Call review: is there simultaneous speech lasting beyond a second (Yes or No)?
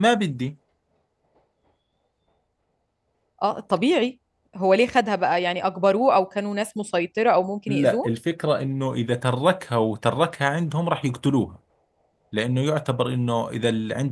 No